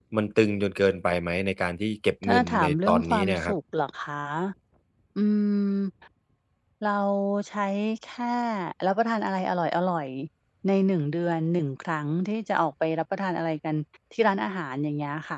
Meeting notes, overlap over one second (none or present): present